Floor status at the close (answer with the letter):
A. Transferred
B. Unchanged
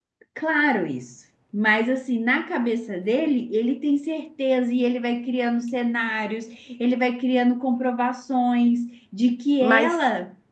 B